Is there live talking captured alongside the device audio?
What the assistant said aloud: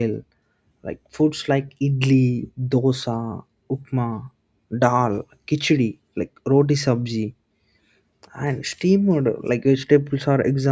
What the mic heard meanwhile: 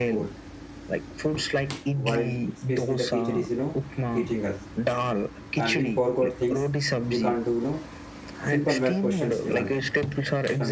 Yes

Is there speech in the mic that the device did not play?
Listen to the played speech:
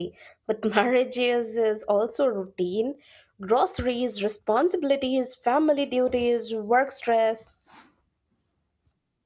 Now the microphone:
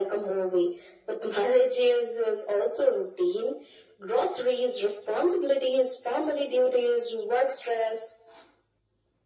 No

